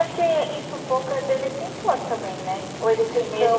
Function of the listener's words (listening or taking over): taking over